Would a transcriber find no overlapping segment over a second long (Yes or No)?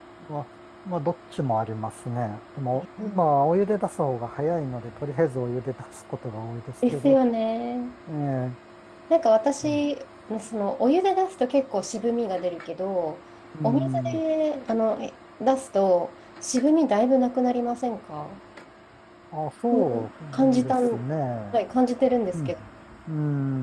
No